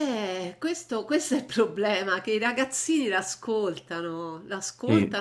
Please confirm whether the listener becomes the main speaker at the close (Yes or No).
No